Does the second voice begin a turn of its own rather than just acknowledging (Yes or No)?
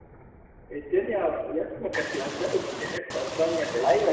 Yes